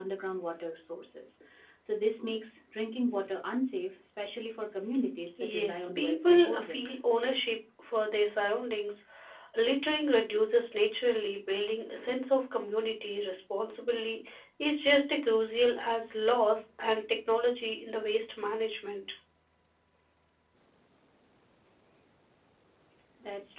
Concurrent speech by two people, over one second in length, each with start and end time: 5.5-6.8

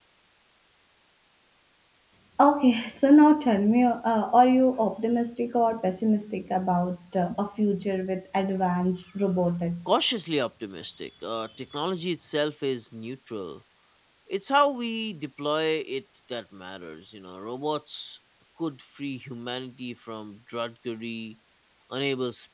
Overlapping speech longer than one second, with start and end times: none

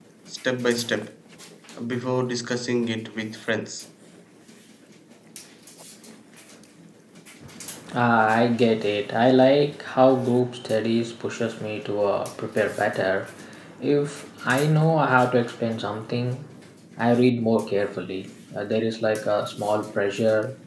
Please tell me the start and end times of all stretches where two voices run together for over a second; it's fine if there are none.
none

